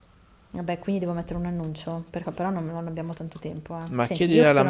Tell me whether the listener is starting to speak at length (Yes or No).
Yes